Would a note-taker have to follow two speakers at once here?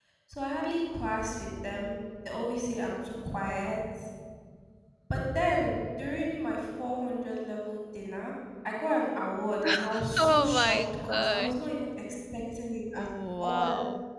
Yes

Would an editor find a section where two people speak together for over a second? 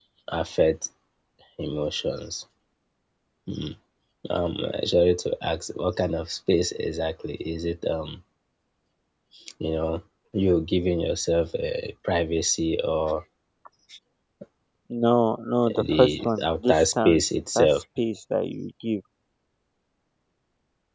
Yes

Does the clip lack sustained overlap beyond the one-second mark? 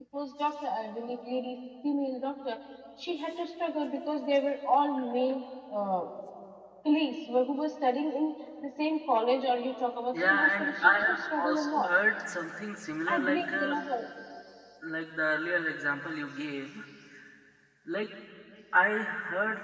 No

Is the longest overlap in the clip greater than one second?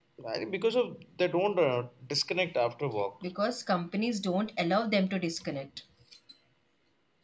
No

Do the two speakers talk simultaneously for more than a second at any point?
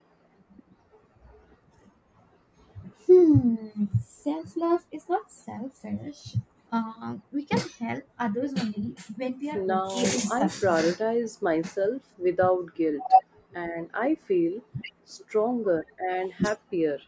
Yes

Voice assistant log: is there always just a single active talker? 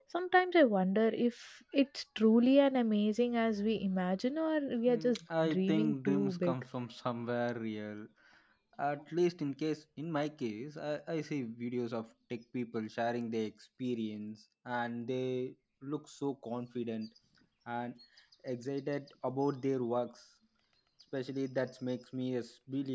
No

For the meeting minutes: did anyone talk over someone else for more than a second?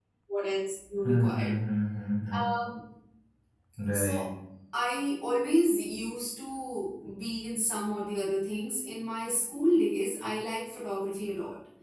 No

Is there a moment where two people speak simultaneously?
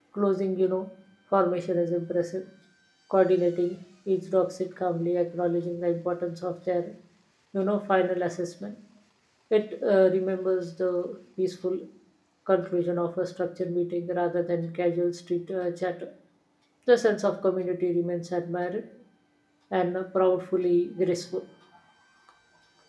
No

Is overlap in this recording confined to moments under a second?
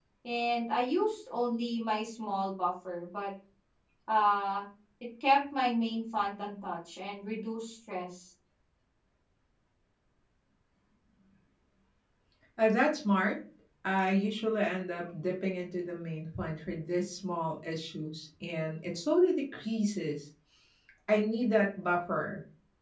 Yes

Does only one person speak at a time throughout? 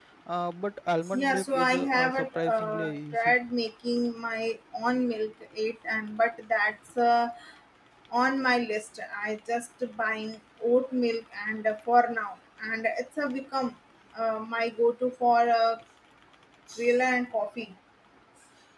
No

